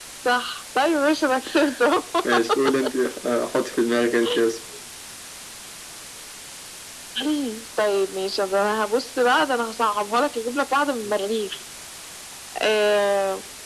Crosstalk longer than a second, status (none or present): none